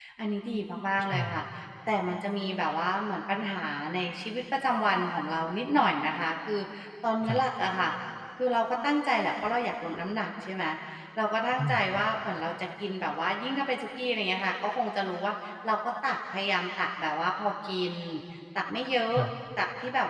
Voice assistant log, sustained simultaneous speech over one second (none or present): none